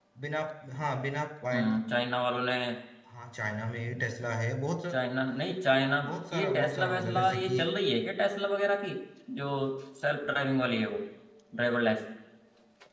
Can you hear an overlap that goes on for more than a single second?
Yes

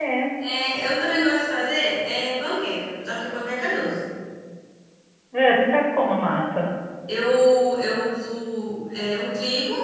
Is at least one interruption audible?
No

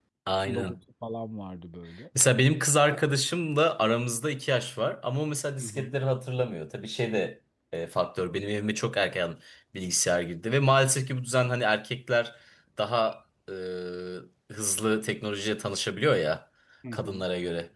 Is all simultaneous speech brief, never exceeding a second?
Yes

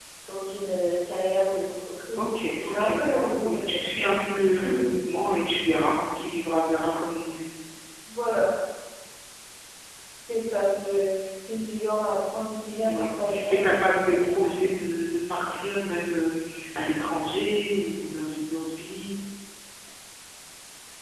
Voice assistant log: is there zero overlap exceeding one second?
No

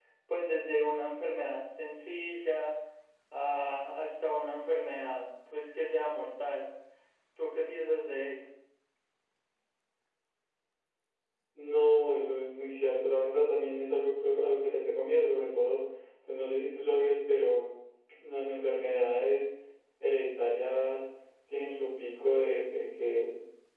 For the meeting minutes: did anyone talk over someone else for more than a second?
No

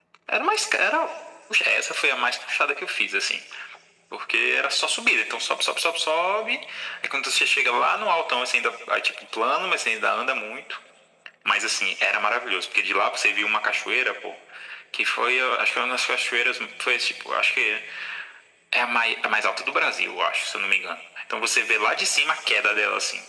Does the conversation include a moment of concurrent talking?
No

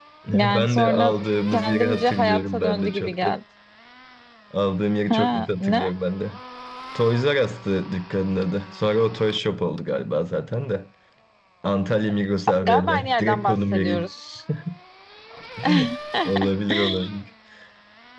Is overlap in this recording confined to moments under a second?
No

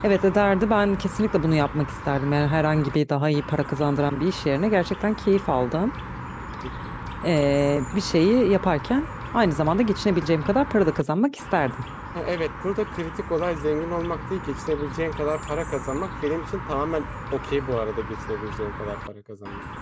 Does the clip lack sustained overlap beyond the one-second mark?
Yes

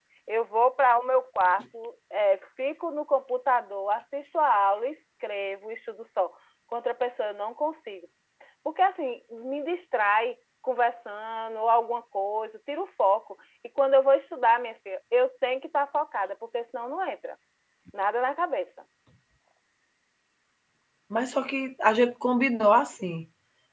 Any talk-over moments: No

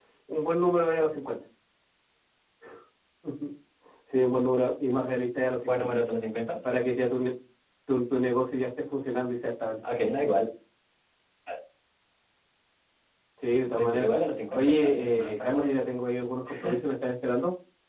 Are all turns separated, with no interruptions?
No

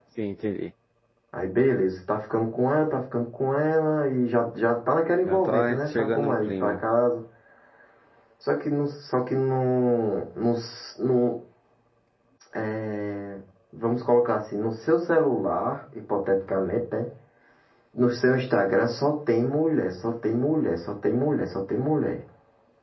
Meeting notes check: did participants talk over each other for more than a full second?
Yes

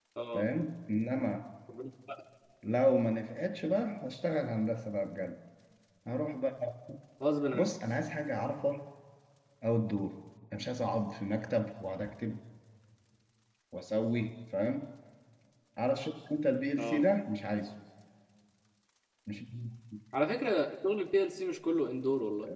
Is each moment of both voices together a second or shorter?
Yes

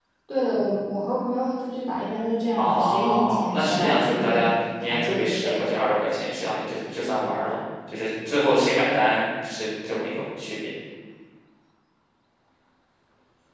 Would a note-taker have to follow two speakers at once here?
Yes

